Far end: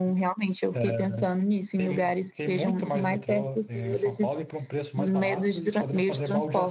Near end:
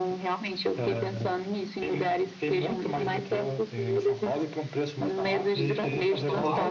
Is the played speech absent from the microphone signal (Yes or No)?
No